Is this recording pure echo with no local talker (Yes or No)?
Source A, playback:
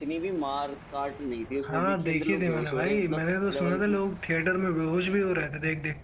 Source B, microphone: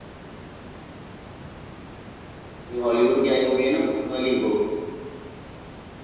No